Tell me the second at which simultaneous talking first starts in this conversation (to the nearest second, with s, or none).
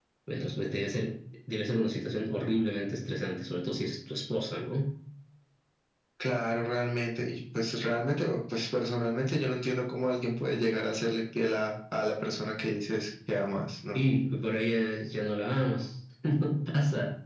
none